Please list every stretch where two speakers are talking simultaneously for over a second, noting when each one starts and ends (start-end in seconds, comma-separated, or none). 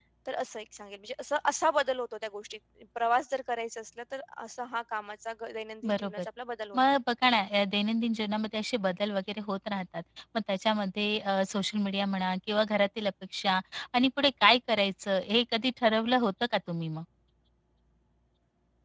none